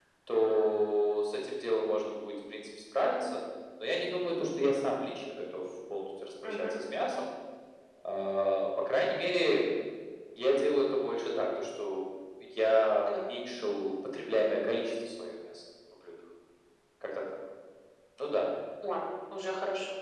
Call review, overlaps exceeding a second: none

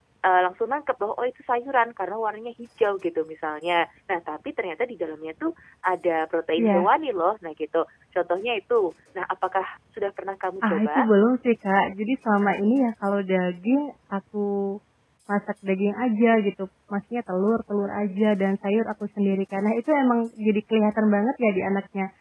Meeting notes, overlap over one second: none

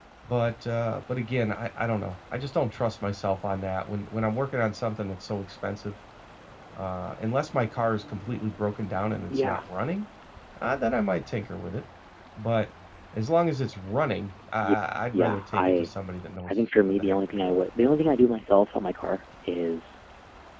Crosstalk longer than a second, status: present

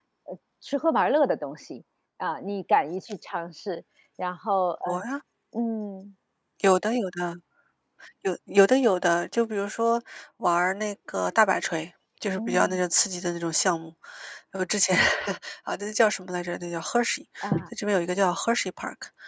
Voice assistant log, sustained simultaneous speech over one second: none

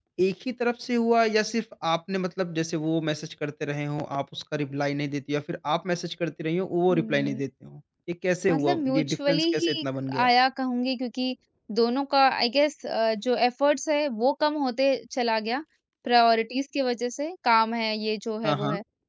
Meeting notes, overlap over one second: present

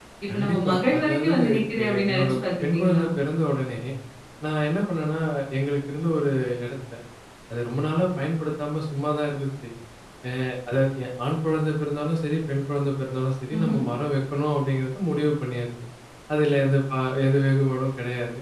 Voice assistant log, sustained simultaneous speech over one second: present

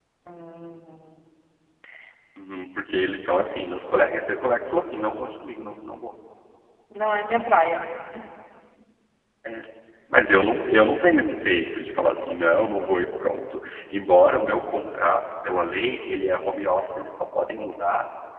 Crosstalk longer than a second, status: none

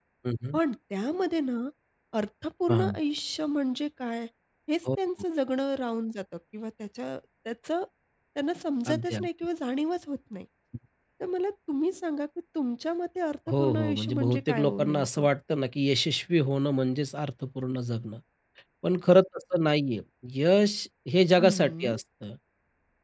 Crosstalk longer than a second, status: present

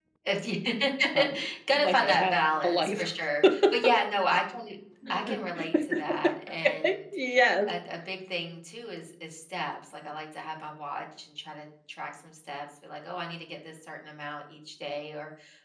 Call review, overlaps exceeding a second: present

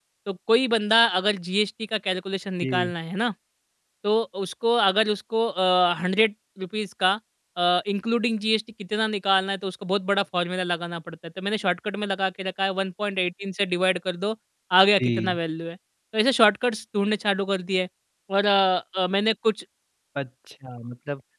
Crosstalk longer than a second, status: none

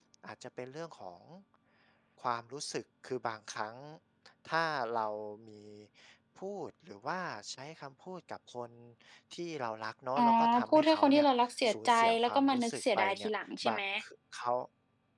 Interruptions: present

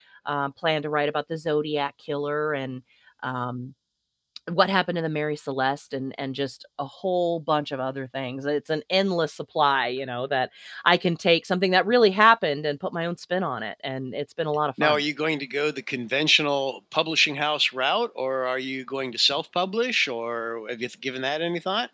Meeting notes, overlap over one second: none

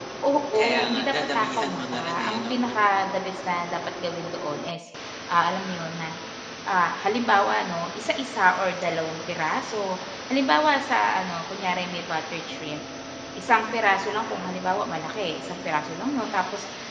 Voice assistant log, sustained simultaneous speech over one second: present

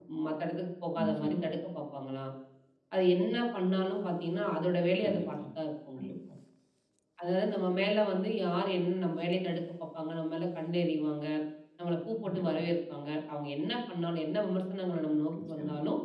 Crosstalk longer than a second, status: none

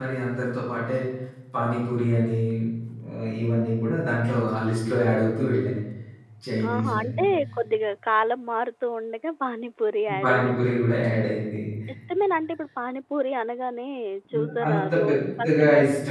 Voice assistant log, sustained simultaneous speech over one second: present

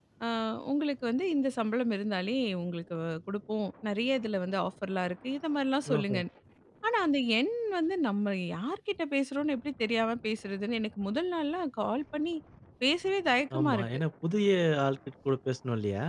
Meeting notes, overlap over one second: none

